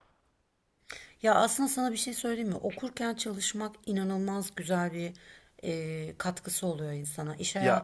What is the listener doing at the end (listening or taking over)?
listening